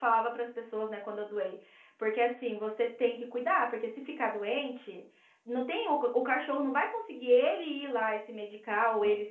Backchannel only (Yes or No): Yes